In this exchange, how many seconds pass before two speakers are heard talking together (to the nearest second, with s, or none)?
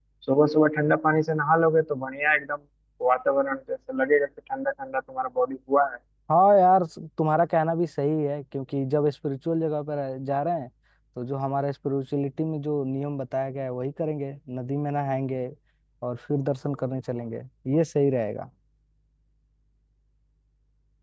none